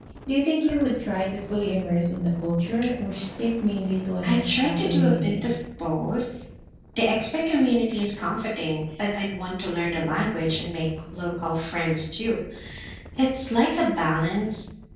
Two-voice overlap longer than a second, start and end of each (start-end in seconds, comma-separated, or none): 4.2-5.4